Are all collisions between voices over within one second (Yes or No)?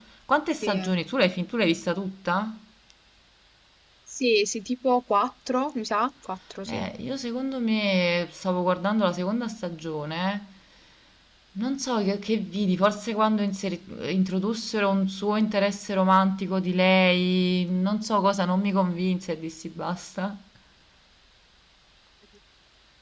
Yes